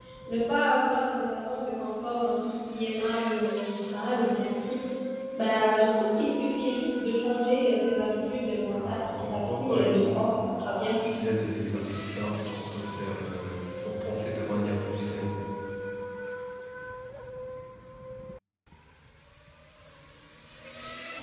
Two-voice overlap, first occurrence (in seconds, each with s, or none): 8.7 s